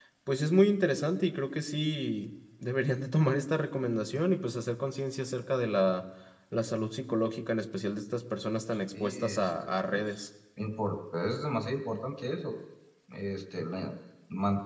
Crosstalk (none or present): present